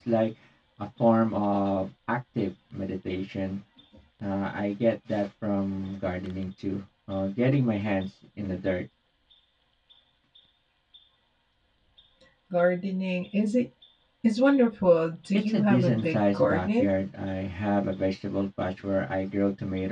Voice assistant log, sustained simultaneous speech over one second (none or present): present